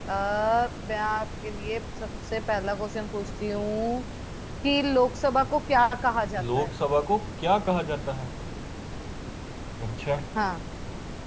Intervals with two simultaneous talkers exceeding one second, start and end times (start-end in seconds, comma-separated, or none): none